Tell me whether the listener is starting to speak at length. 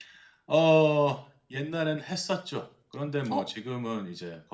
No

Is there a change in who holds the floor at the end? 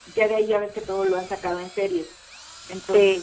No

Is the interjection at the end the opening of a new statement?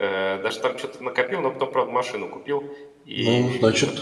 Yes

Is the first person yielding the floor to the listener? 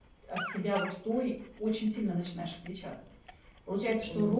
No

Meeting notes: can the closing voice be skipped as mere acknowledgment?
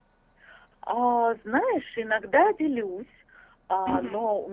Yes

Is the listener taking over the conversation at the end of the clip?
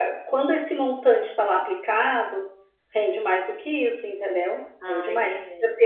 No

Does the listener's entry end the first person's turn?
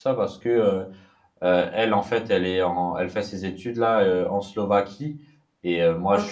No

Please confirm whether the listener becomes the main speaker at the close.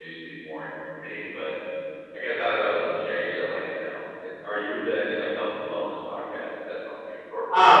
Yes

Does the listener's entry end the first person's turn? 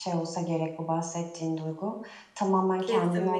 No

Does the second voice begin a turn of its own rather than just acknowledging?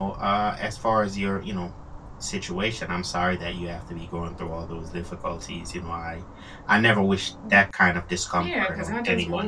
Yes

